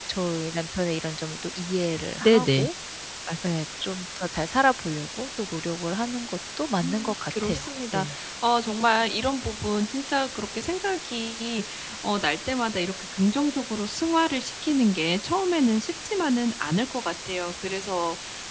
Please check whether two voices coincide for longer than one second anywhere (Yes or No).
Yes